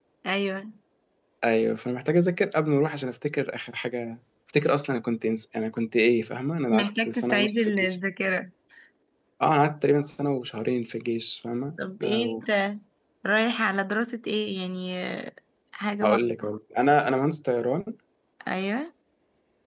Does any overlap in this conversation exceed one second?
Yes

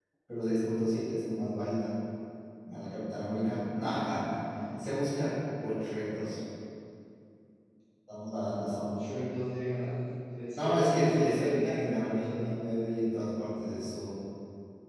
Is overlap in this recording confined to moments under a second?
No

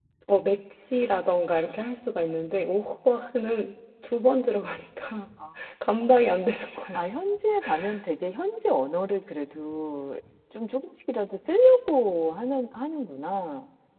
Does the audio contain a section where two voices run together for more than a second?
No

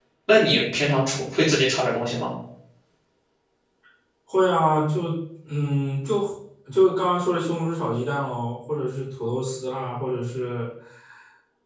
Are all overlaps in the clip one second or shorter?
Yes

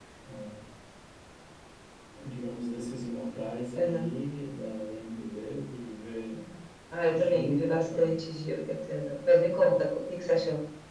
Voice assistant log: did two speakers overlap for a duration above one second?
Yes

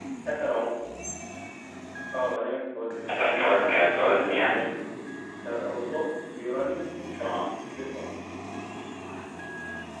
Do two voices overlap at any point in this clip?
Yes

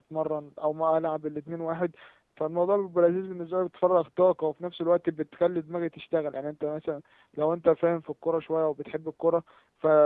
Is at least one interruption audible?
No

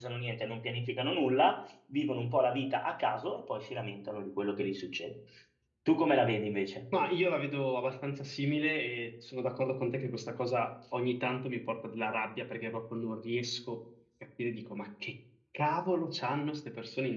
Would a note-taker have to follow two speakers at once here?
No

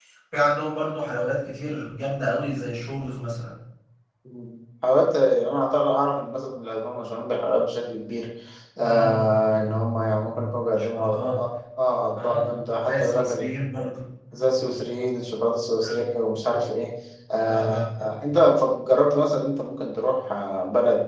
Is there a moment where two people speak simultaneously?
Yes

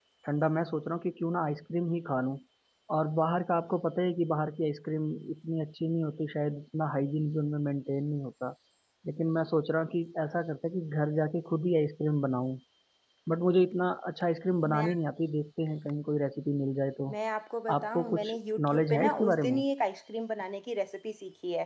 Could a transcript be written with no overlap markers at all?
No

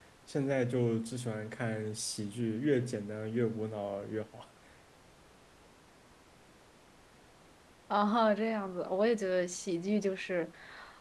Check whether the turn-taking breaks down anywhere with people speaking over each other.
No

